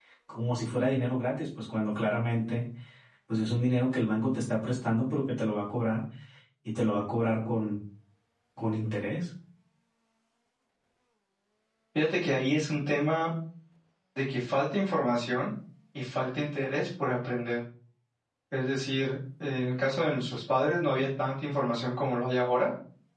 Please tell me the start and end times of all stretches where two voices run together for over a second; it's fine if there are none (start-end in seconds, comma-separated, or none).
none